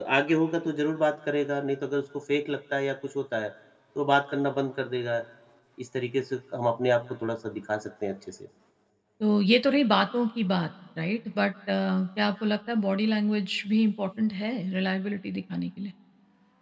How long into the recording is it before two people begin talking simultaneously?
none

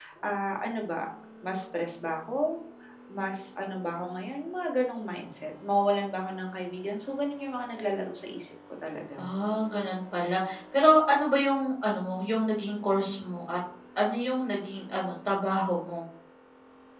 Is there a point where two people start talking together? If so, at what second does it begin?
none

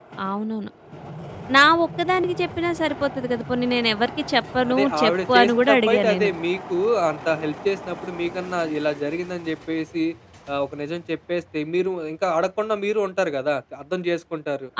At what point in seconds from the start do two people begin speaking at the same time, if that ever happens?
4.6 s

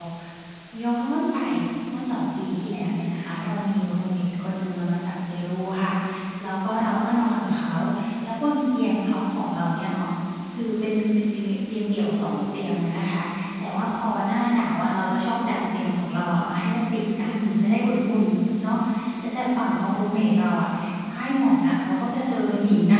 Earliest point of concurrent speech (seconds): none

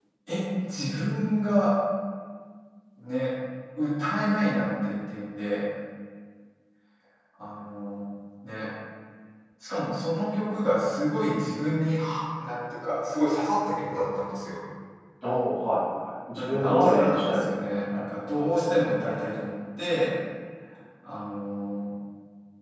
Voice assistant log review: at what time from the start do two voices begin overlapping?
16.4 s

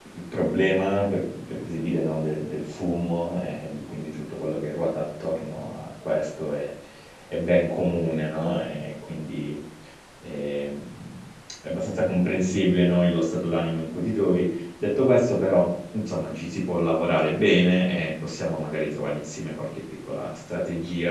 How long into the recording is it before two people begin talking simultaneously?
none

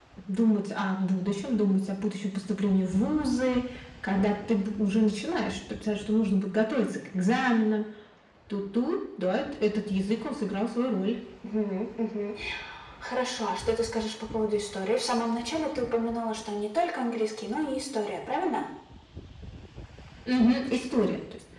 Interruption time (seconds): none

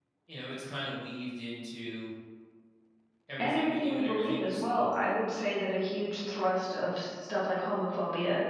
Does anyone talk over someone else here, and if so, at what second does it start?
3.4 s

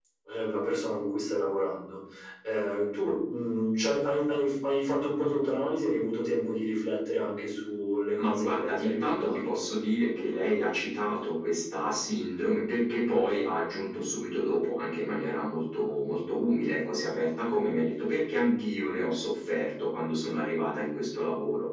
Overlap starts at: 8.2 s

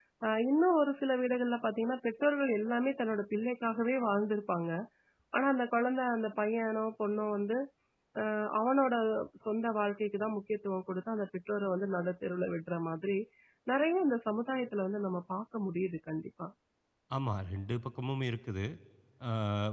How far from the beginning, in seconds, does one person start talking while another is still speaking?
none

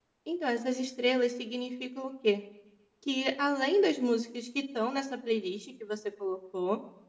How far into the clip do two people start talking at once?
none

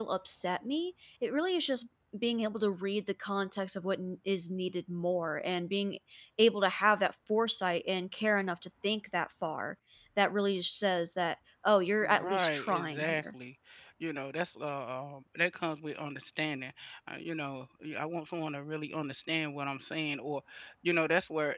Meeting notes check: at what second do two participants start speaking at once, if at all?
12.0 s

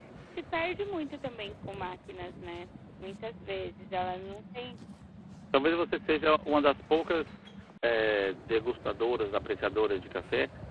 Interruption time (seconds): none

